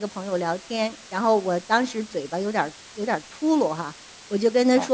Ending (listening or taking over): listening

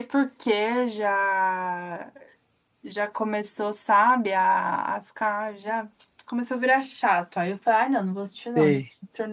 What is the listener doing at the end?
listening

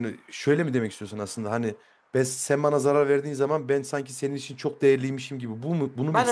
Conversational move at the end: taking over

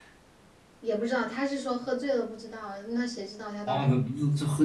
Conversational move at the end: taking over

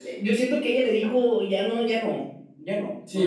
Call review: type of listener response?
taking over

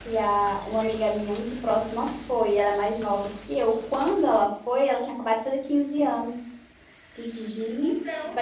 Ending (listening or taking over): listening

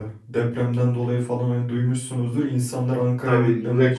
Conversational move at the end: taking over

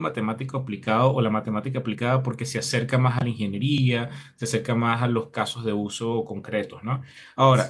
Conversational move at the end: listening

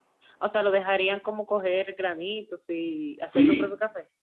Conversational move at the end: taking over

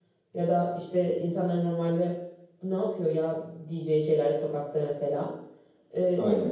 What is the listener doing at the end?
listening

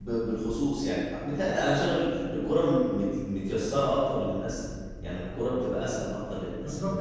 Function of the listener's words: taking over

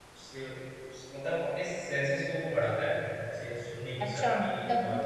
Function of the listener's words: taking over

